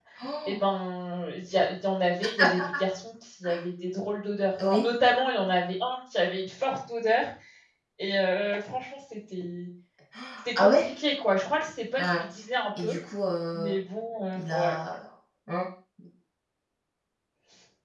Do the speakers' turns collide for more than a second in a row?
No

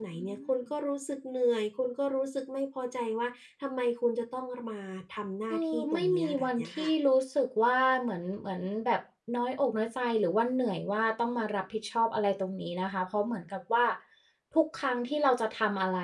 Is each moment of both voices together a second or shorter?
No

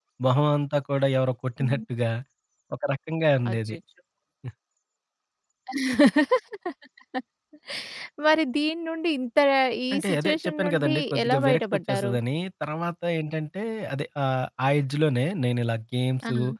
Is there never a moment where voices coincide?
No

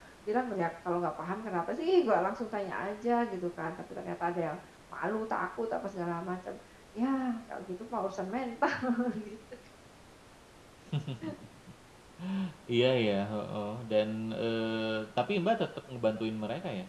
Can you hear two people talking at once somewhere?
No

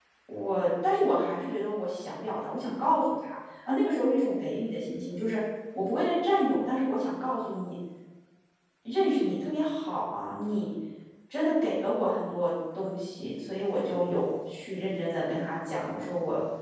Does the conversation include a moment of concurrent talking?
No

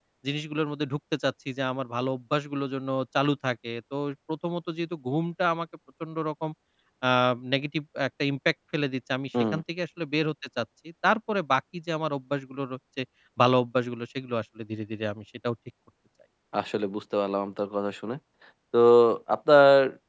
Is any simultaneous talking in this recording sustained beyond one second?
No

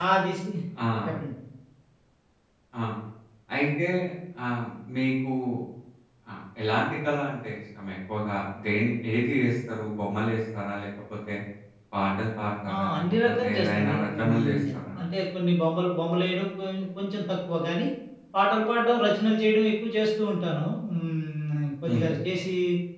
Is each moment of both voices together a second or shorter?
No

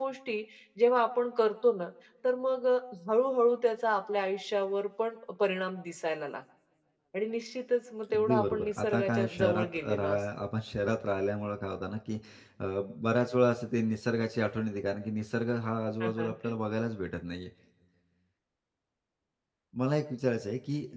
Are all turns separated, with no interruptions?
No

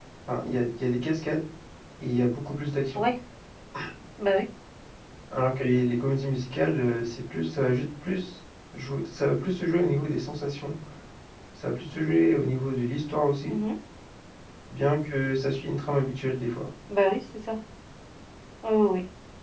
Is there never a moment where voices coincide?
Yes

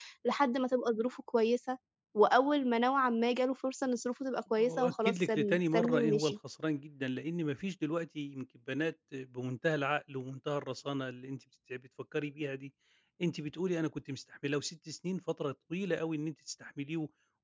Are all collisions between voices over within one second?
No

